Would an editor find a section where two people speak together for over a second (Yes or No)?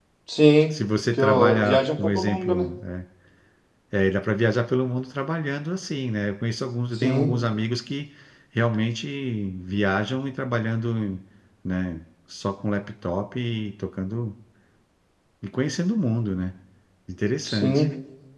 Yes